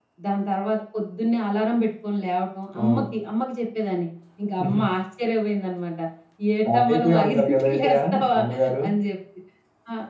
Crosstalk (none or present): present